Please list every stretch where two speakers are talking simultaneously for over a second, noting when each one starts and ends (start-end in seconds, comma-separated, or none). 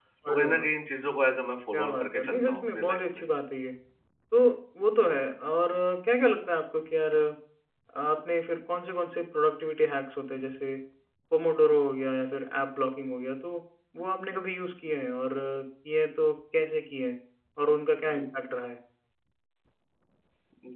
1.7-3.2